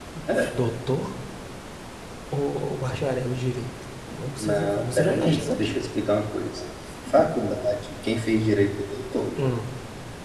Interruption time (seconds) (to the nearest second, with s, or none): 4 s